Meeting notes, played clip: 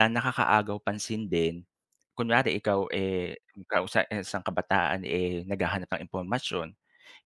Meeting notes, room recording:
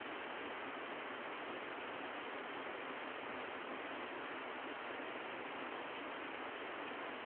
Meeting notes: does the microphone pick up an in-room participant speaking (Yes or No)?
No